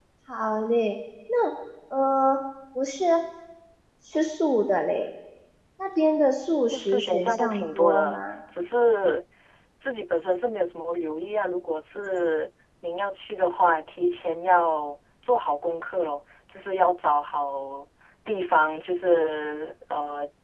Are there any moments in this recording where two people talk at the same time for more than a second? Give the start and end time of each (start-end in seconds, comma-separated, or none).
6.6-8.3